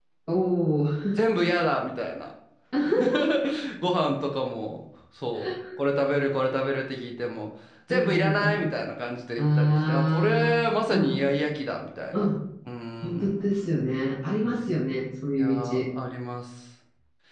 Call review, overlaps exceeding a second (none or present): present